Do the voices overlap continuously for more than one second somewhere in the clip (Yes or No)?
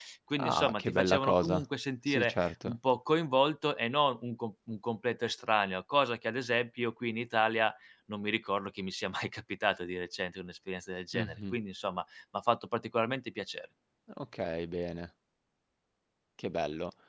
Yes